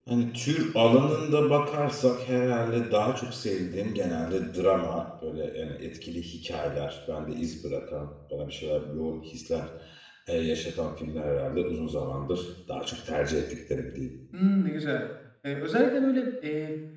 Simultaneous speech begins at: none

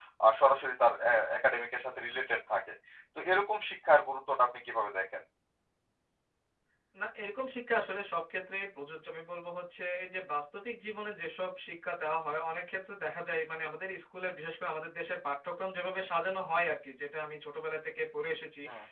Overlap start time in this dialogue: none

